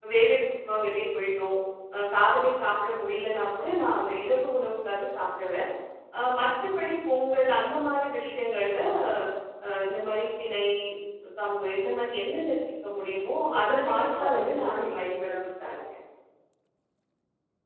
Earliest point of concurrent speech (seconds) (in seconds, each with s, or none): 13.5 s